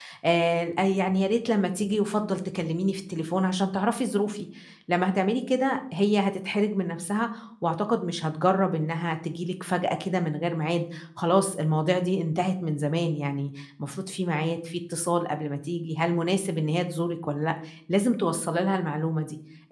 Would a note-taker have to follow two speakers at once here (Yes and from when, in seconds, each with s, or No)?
No